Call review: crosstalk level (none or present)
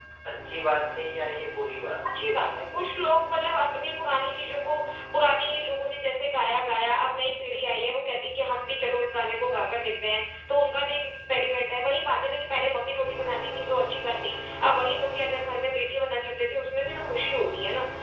none